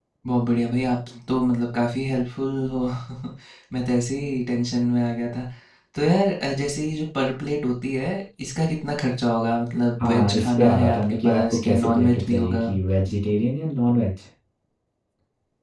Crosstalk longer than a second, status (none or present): present